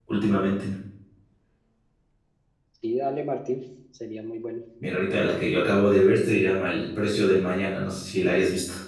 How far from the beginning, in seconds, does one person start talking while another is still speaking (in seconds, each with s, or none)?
none